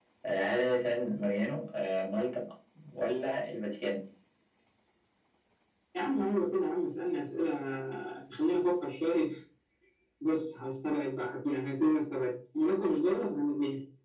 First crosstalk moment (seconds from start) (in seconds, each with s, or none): none